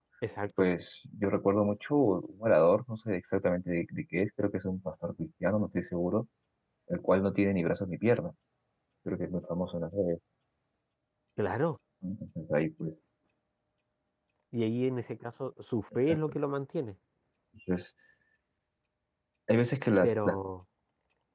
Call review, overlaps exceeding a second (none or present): none